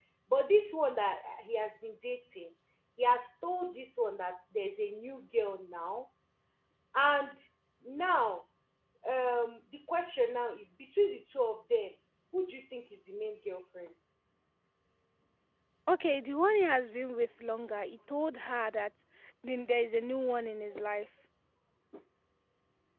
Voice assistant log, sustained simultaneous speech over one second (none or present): none